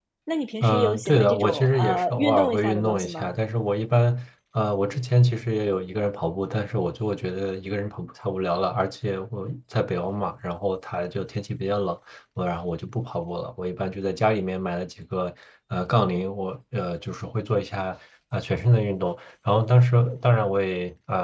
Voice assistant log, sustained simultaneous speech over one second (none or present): present